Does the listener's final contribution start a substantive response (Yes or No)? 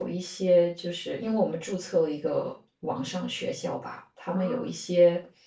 No